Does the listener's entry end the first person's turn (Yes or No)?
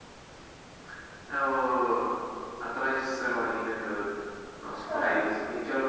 No